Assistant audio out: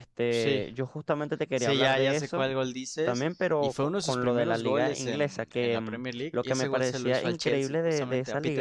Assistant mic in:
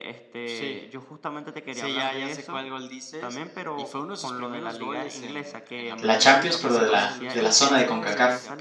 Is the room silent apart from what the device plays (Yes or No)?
No